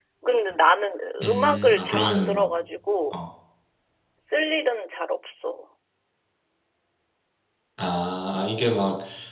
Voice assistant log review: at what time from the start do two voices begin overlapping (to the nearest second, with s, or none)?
1 s